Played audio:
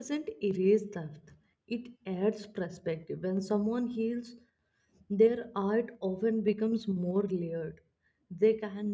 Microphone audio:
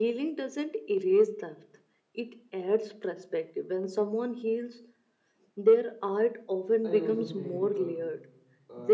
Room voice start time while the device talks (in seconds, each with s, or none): 6.8 s